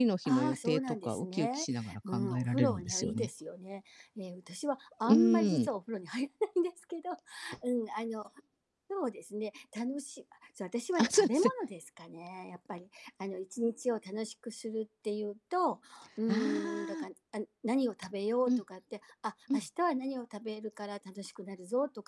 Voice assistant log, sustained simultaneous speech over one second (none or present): present